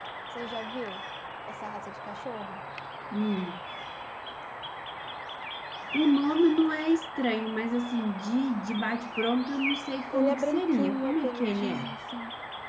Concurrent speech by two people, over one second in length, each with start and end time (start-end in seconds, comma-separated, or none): 10.1-11.9